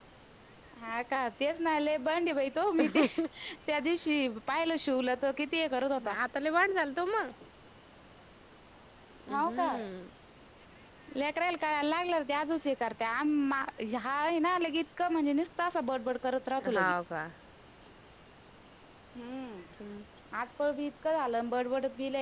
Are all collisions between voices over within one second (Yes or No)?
Yes